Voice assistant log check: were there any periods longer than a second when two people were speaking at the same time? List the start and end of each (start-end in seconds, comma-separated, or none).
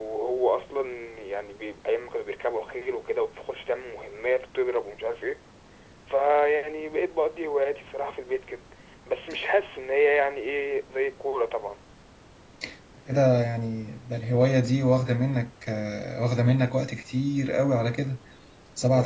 none